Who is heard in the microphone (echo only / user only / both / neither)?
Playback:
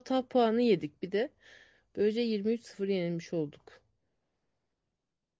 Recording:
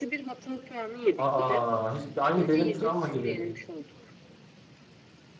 both